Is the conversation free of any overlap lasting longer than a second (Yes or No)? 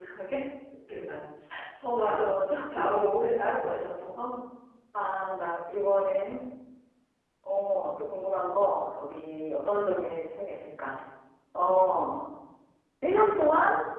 Yes